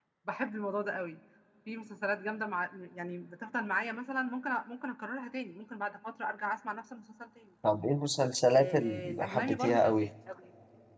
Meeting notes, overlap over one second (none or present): present